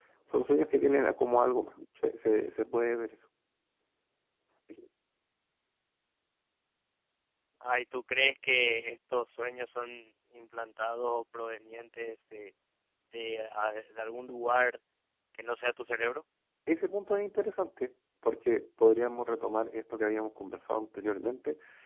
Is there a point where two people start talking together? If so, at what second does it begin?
none

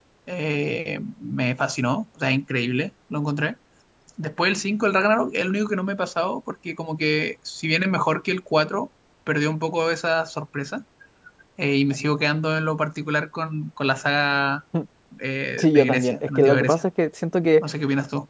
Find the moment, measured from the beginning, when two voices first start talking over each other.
15.6 s

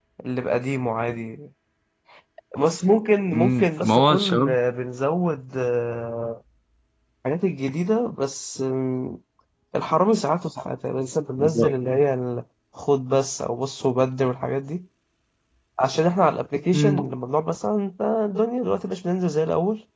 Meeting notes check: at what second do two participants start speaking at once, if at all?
3.3 s

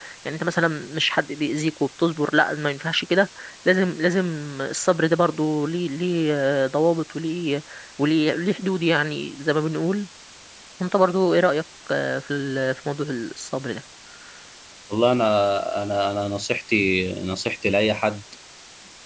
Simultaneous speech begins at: none

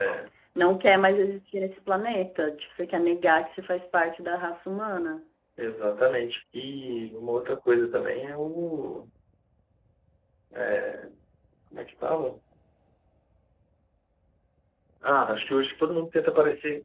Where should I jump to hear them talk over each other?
none

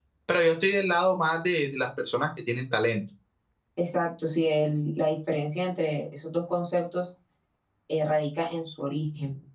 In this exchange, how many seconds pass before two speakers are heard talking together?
none

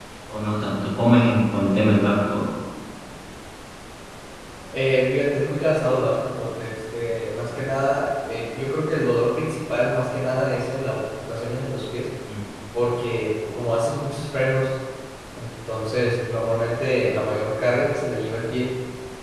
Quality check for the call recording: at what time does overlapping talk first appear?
none

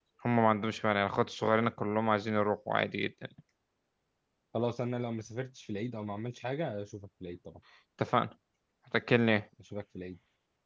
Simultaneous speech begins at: none

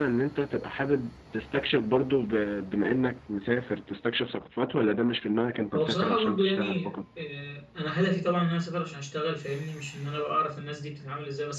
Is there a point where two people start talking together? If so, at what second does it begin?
5.7 s

